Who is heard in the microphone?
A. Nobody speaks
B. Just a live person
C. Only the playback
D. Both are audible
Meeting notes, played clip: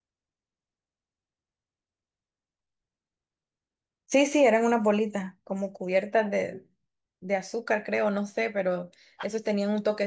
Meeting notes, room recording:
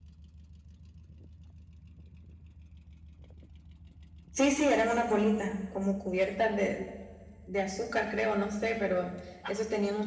C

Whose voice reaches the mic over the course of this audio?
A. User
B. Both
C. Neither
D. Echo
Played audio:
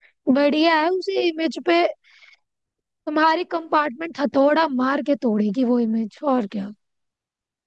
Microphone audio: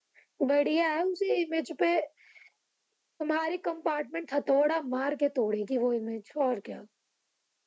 D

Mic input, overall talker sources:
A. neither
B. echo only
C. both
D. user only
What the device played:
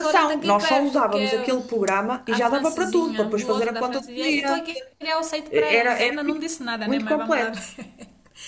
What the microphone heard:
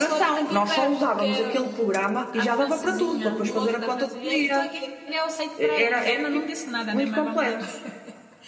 B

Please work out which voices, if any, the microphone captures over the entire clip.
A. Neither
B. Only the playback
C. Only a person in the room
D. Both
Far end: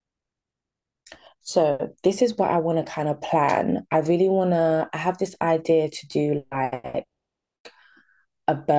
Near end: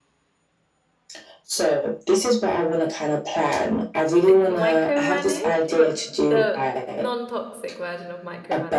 D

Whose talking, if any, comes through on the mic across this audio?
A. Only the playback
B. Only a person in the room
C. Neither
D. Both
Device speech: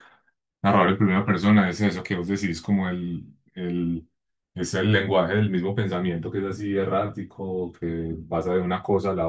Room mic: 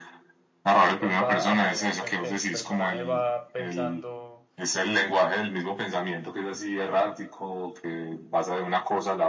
D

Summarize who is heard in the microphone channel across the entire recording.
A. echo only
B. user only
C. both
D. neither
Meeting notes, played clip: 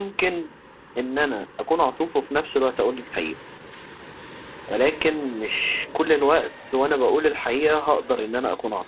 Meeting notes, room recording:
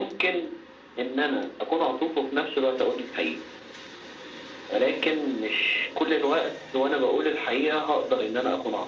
A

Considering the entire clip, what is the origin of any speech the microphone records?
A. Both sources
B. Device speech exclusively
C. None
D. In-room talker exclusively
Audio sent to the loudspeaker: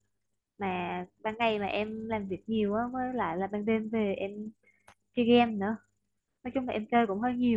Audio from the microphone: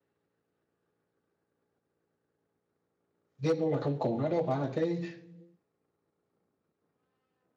D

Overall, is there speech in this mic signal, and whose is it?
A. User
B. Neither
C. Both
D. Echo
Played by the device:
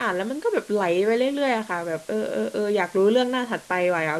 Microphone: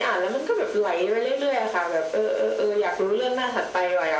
D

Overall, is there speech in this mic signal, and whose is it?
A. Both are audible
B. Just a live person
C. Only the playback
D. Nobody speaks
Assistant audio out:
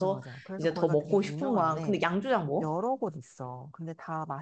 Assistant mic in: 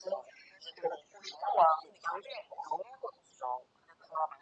C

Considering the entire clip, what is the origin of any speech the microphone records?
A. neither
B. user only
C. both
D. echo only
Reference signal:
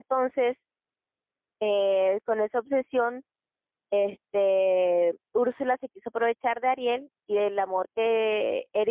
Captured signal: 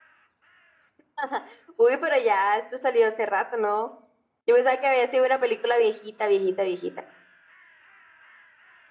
B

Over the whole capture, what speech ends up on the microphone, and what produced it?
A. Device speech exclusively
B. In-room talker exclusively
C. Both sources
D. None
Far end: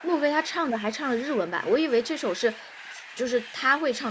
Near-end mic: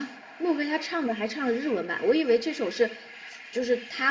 A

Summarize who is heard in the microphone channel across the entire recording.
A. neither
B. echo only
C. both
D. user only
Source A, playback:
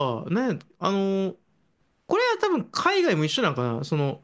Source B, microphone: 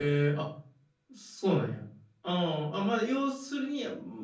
D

